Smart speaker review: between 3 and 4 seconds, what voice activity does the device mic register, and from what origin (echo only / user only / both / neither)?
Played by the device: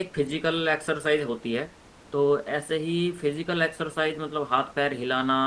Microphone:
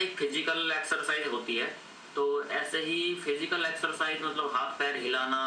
echo only